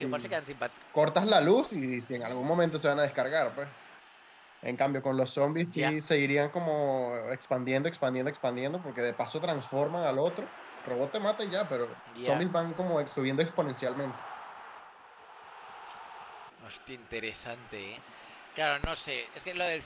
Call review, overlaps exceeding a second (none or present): none